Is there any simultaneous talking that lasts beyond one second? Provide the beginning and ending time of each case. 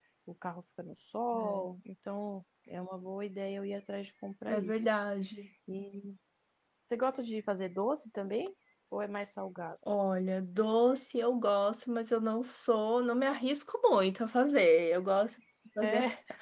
none

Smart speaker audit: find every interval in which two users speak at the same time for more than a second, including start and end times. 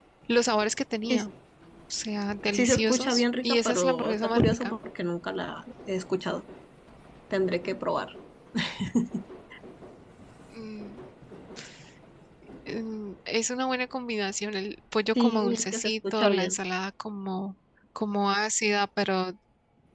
2.5-4.8, 15.2-16.6

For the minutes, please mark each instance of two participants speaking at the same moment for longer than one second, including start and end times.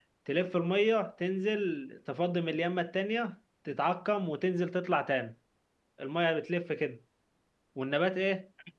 none

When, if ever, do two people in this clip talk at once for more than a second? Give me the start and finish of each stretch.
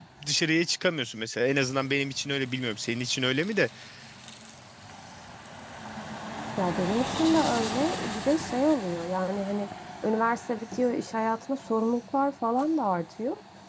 none

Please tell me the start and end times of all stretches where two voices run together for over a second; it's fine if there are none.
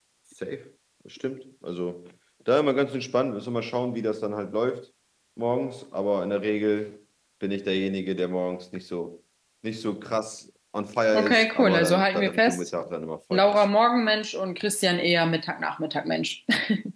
11.1-12.7

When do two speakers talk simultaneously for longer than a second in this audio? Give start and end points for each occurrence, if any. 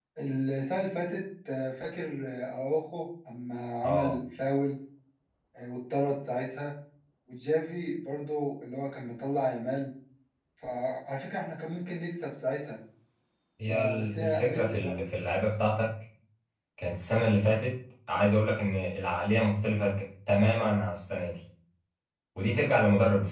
13.7-15.0

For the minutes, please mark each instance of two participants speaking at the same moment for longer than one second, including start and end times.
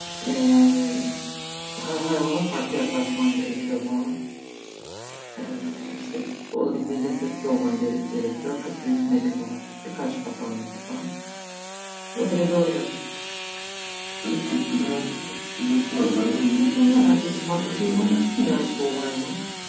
16.5-18.1

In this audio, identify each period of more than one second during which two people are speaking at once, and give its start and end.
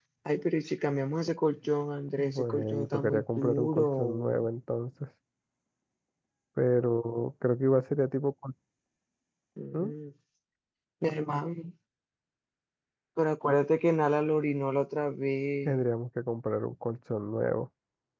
2.2-4.4

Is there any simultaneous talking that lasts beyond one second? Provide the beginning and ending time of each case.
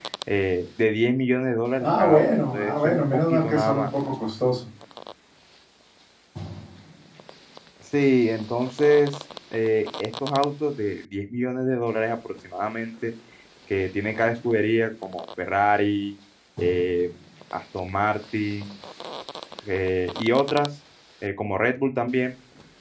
1.8-3.9

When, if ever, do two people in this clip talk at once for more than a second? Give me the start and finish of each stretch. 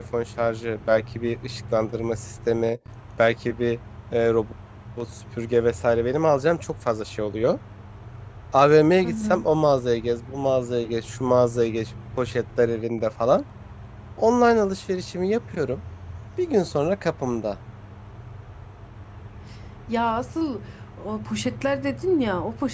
none

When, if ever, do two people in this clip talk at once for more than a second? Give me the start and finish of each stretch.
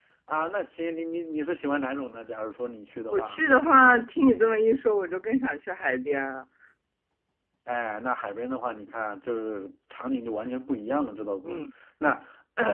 none

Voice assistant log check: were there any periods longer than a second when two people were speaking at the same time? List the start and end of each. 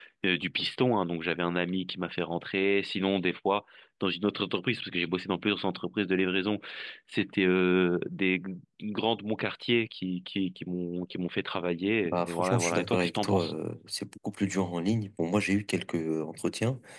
12.1-13.5

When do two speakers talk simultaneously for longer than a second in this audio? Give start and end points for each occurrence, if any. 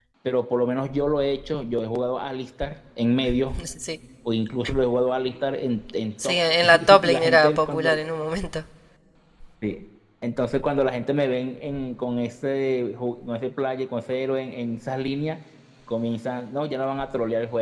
6.2-8.0

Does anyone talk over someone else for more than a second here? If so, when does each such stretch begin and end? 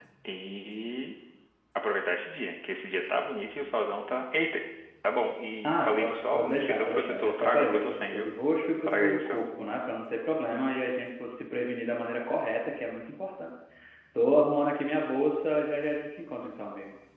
5.7-8.3

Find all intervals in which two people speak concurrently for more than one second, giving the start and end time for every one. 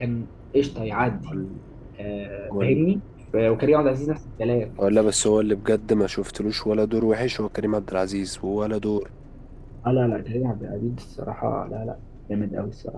none

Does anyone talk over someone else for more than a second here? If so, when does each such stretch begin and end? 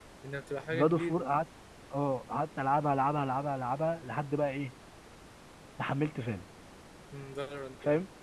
none

